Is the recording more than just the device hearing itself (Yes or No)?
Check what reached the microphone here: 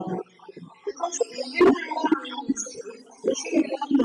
No